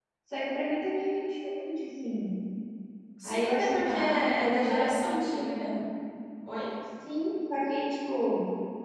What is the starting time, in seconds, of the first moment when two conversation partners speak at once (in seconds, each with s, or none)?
3.2 s